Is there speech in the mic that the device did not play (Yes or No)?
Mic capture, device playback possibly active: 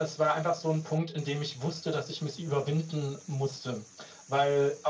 No